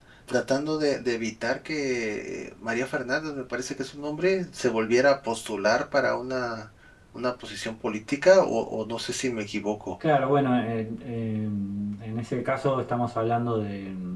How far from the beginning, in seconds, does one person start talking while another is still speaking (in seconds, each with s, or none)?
none